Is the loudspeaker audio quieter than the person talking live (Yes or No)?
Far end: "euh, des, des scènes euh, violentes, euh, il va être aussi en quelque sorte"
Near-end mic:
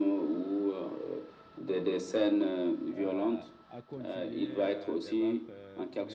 No